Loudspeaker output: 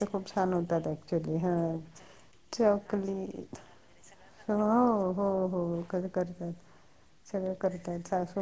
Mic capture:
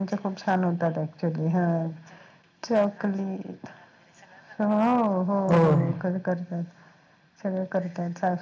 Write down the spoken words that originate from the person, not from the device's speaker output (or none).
होय